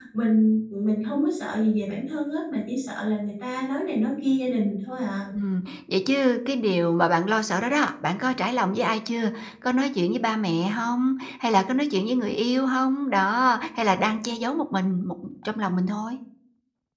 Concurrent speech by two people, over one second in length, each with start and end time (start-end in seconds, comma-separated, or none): none